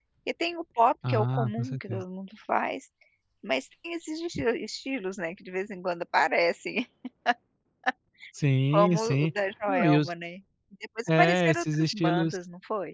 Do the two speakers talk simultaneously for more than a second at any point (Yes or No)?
Yes